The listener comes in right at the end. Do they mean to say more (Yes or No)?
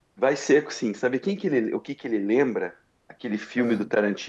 No